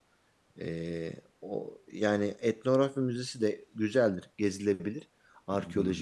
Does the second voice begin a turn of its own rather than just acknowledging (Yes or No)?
No